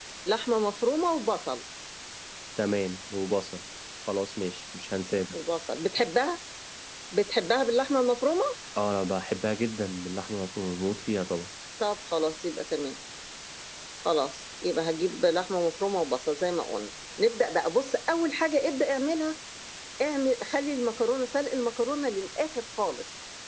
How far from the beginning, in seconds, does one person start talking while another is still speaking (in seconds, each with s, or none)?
none